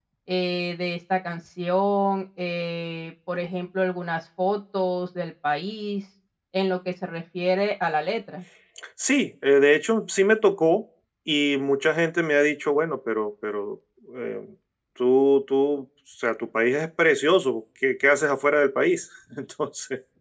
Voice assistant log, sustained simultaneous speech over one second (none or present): none